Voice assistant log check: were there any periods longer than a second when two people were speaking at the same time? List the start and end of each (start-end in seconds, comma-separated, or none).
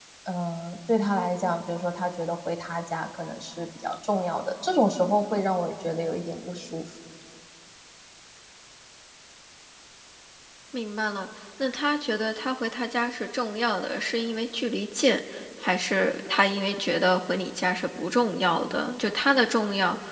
none